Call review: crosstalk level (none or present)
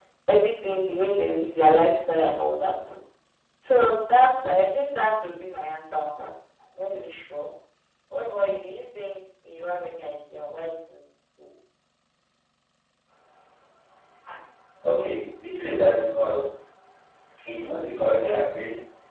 none